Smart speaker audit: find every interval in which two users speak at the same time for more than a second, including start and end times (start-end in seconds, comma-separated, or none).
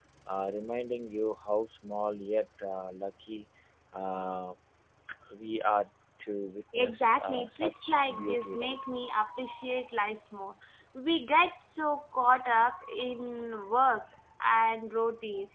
6.7-8.8